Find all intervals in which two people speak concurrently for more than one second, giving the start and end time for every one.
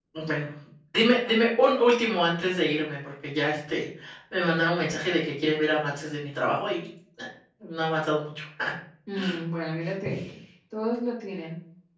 none

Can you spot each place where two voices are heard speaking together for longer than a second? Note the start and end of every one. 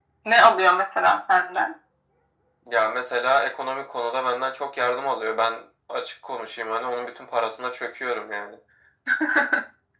none

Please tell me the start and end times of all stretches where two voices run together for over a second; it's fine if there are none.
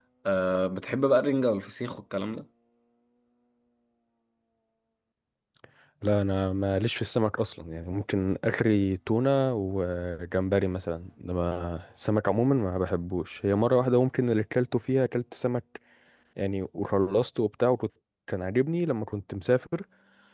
none

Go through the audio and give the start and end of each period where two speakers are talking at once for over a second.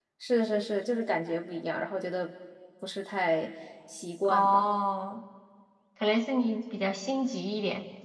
none

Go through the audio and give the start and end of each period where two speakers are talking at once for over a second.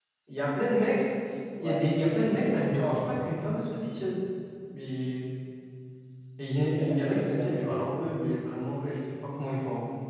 1.6-3.1, 6.7-7.9

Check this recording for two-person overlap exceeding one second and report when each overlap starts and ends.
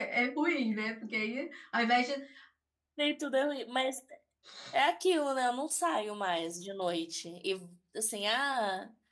none

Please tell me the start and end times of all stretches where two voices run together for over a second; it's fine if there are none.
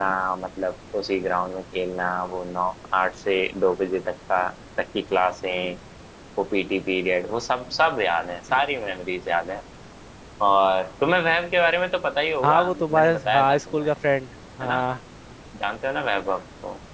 12.4-13.9

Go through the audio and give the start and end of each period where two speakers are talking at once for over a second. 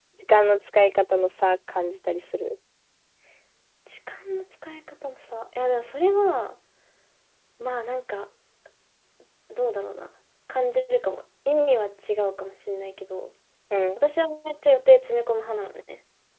none

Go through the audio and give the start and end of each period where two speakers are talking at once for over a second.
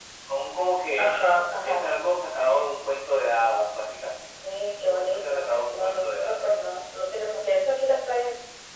4.9-6.5

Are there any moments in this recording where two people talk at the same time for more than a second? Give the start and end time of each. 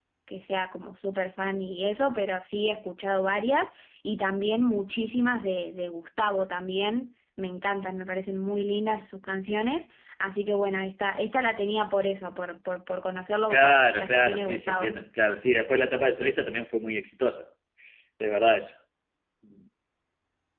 13.5-14.9

